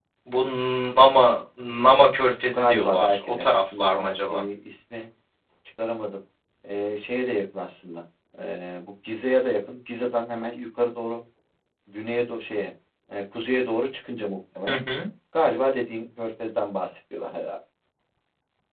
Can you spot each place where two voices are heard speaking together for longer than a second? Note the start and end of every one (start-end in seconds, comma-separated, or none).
2.5-4.4